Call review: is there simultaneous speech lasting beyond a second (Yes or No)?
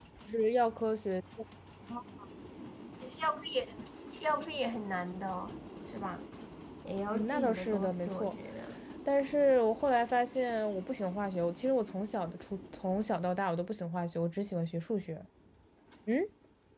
Yes